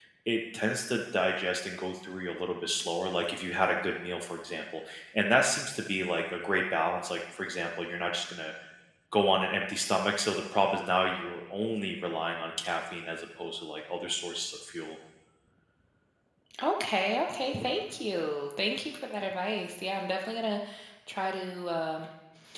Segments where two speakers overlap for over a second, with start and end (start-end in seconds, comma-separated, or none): none